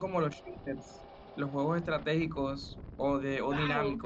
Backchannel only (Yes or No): No